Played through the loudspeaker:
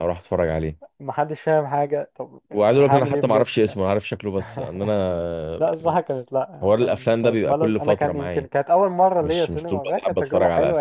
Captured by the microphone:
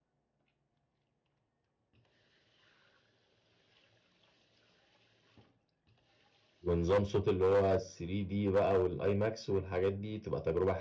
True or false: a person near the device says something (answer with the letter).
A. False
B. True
B